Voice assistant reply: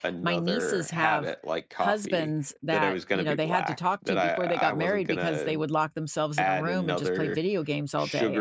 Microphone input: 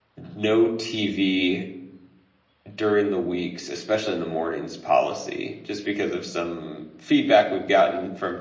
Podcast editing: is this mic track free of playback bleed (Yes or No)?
Yes